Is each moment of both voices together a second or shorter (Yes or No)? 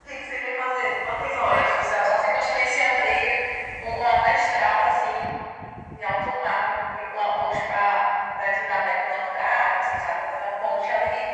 Yes